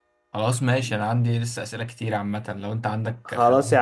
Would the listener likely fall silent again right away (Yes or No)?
No